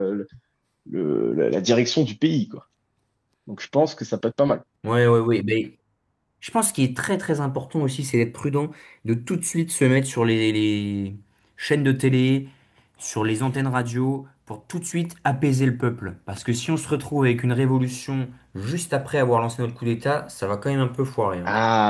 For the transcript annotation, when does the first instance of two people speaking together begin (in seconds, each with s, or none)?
none